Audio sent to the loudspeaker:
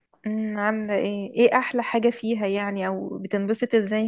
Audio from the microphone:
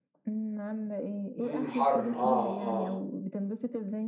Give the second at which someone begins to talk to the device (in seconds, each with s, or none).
1.4 s